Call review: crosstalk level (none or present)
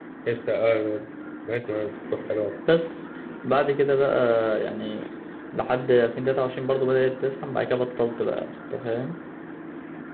none